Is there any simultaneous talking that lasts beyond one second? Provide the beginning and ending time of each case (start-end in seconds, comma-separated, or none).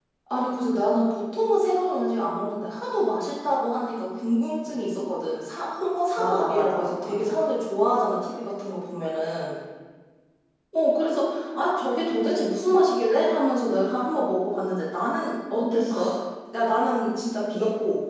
6.2-7.4